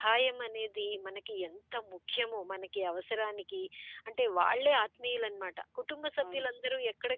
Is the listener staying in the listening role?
Yes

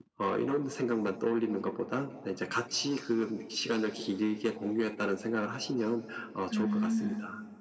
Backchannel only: No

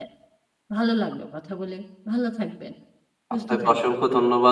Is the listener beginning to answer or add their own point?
Yes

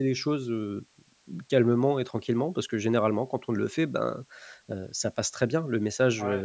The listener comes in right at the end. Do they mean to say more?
No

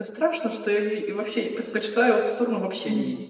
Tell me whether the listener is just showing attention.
No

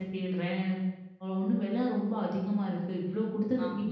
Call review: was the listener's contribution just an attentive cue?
Yes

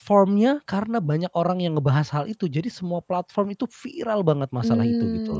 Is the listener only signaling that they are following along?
No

